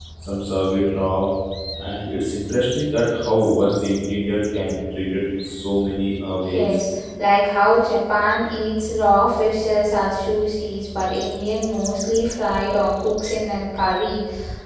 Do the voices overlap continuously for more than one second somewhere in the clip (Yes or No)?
No